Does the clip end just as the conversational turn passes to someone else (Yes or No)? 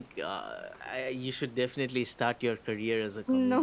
No